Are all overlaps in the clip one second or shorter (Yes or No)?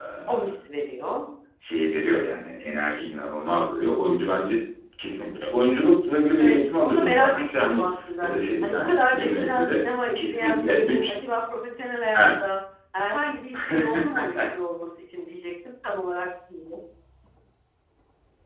No